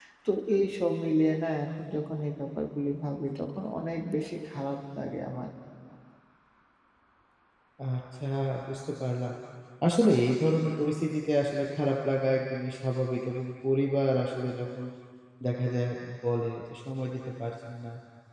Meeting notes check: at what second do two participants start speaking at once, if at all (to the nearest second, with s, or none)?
none